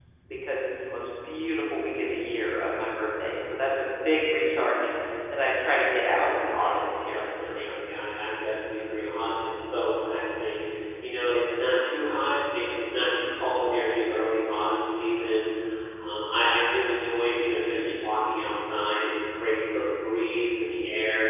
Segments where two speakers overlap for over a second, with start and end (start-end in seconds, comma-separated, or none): 6.2-7.8